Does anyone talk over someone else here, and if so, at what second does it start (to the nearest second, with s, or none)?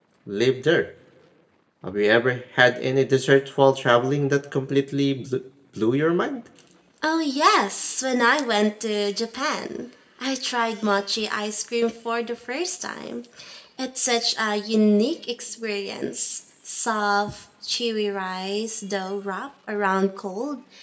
none